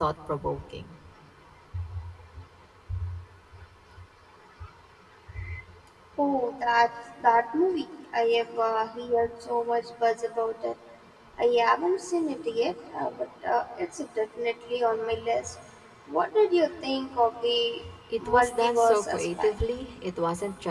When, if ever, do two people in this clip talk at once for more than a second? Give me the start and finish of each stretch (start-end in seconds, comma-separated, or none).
18.2-19.5